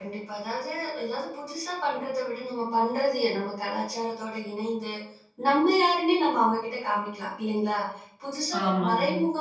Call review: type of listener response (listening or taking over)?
listening